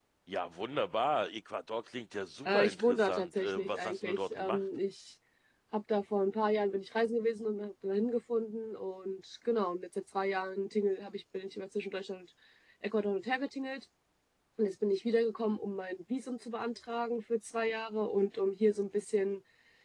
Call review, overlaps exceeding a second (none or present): present